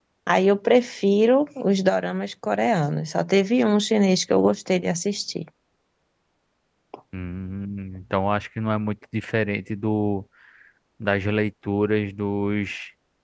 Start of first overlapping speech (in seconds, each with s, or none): none